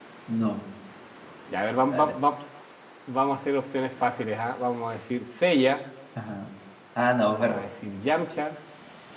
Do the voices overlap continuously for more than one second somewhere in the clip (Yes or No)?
No